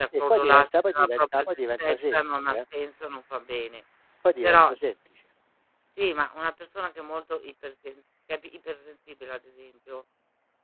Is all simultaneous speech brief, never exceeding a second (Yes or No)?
No